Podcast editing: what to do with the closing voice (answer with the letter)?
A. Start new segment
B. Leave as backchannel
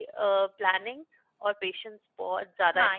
A